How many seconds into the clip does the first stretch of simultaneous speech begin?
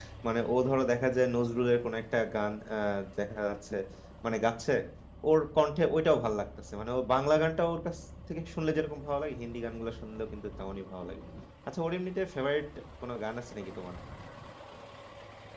none

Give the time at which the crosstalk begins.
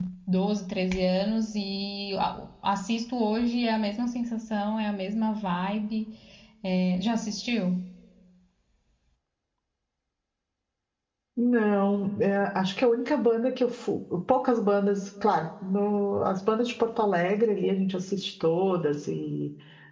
none

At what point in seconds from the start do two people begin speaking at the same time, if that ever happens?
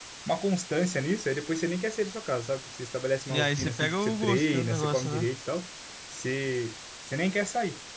3 s

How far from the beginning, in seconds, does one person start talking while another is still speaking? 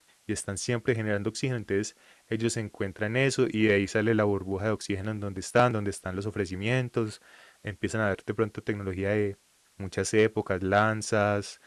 none

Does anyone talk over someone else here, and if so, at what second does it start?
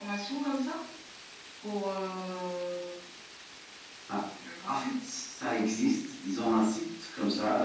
none

